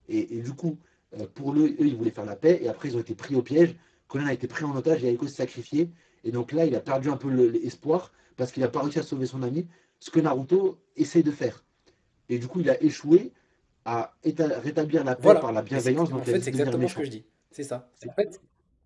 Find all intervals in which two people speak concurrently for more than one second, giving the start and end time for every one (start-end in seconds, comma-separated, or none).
15.2-17.0